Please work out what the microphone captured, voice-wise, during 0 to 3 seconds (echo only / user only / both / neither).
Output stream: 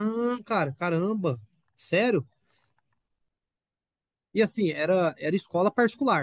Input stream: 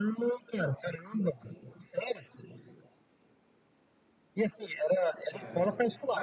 echo only